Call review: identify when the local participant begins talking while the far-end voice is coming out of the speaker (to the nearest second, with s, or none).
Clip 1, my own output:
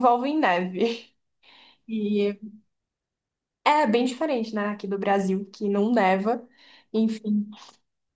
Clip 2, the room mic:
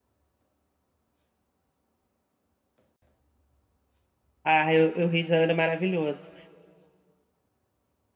4 s